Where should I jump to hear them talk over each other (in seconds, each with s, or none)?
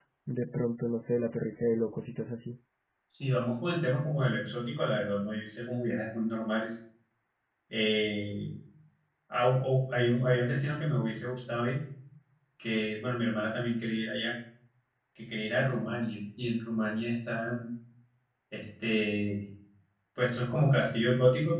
none